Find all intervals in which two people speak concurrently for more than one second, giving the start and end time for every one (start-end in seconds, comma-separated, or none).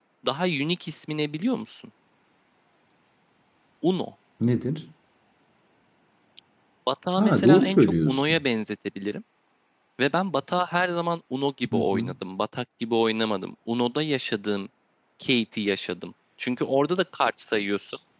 7.2-8.4